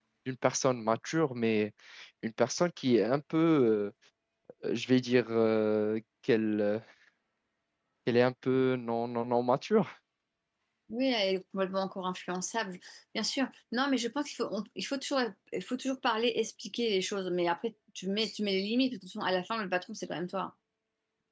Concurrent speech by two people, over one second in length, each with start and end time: none

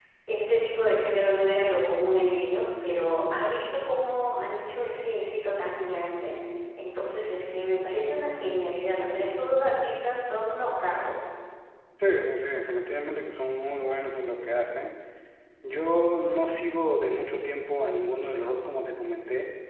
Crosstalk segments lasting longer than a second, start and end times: none

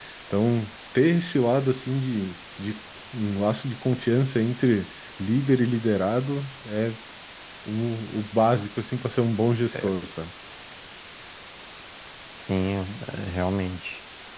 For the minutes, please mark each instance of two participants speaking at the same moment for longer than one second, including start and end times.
none

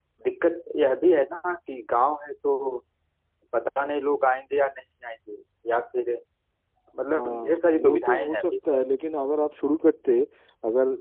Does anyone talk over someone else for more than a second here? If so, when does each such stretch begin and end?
7.2-8.4

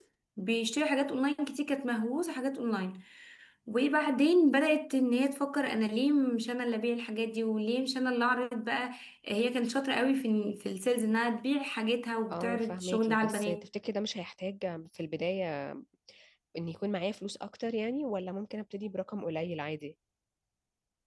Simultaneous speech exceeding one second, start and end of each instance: 12.3-13.6

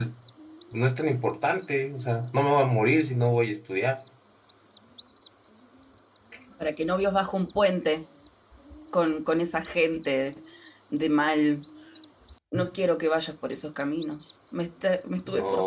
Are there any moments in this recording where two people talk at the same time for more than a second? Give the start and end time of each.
none

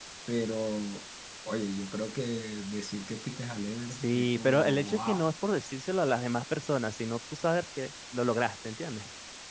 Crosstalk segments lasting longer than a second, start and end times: 4.0-5.3

